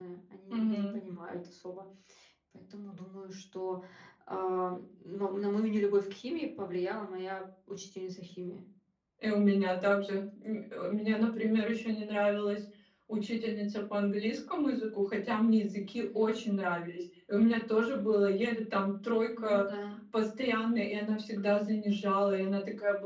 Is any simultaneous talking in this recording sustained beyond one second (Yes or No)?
No